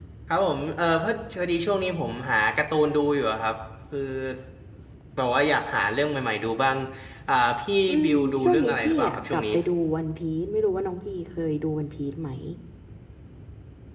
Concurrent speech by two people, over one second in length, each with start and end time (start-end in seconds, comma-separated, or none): 7.9-9.4